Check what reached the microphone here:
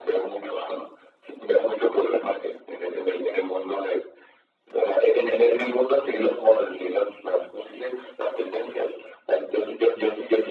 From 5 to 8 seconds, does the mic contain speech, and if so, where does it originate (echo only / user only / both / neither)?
echo only